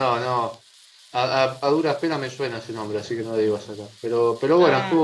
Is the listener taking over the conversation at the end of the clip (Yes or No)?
No